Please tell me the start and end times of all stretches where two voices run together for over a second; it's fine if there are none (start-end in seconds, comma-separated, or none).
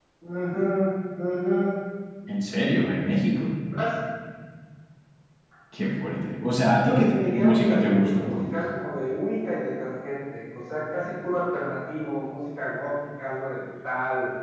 6.7-8.6